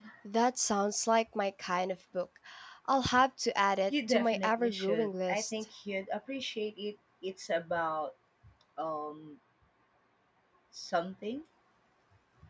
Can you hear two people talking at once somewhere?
Yes, from 3.9 s

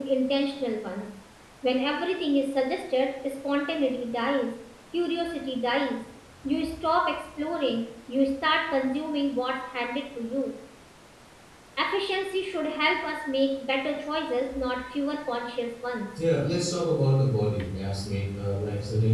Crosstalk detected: No

